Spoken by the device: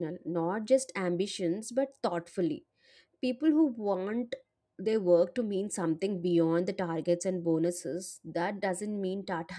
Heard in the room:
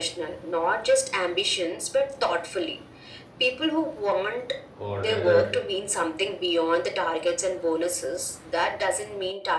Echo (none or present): present